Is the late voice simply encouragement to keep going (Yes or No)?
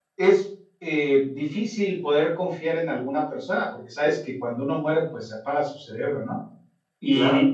Yes